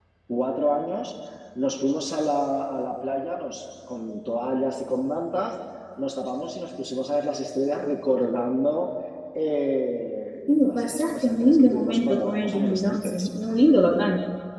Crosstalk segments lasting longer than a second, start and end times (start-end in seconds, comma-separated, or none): 10.5-13.3